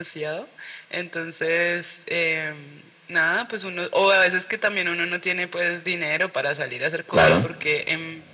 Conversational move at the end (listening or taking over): listening